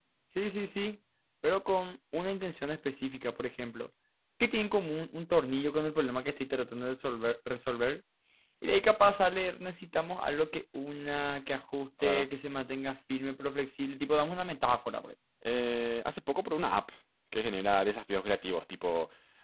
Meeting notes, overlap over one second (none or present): none